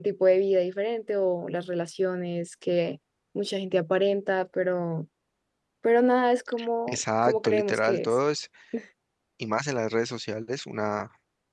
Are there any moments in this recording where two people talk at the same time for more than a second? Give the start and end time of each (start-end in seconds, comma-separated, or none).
6.9-8.1